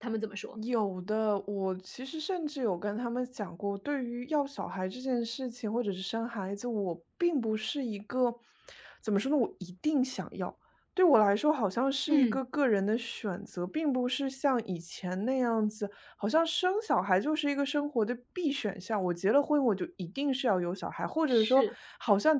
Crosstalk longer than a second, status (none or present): none